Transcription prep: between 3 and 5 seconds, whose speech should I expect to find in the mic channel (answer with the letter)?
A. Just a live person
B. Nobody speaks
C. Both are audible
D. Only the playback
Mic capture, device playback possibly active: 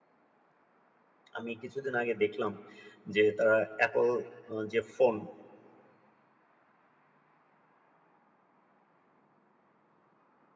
A